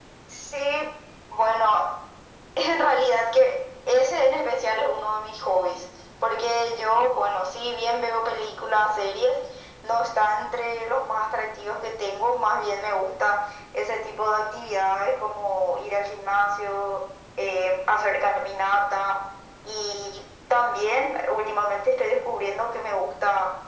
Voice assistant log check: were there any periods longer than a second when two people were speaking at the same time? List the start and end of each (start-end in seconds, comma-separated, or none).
none